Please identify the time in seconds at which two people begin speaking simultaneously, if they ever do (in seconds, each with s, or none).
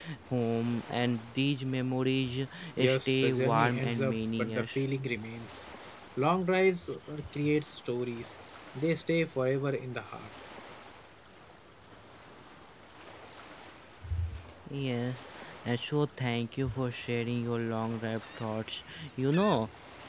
2.9 s